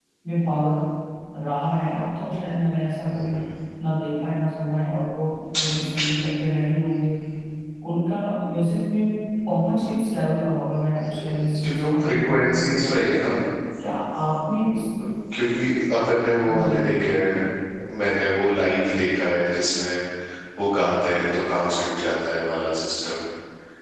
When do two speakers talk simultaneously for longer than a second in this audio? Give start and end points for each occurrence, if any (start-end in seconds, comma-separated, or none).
10.9-13.3